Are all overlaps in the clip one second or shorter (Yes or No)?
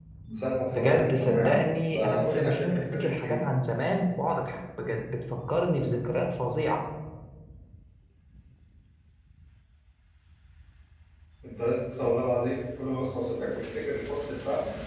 No